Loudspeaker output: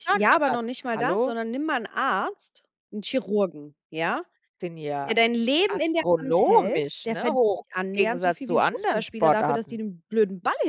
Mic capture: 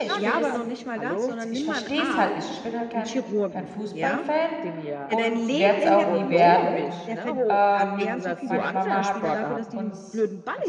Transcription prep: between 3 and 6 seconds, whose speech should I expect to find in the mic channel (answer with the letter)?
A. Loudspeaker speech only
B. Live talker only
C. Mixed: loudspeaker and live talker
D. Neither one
C